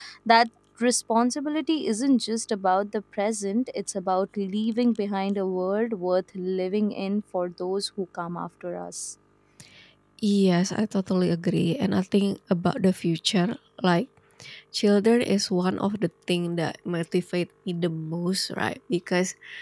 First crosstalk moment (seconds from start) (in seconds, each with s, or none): none